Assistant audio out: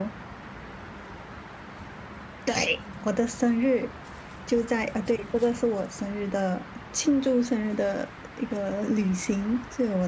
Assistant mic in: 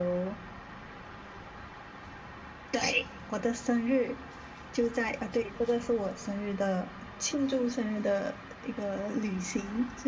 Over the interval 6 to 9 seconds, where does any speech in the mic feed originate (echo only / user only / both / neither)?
echo only